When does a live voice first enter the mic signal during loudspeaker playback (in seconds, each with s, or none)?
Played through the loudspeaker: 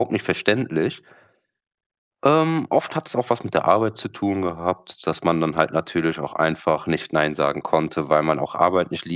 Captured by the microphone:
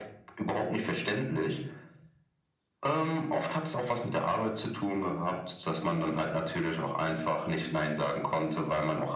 none